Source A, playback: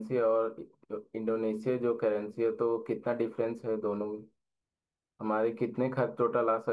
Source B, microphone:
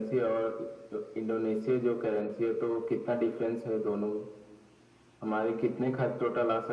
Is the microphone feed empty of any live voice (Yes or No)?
Yes